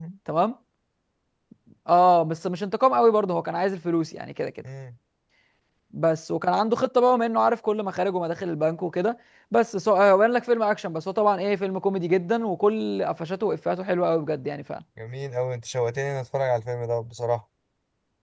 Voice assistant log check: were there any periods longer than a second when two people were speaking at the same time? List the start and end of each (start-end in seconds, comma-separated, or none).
none